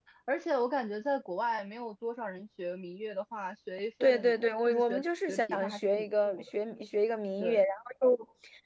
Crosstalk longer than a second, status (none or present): present